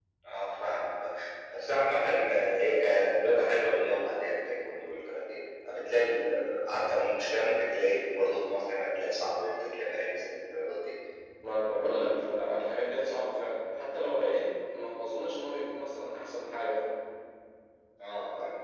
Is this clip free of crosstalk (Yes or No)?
Yes